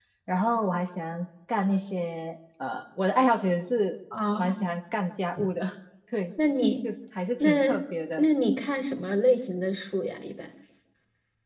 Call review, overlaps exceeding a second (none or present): none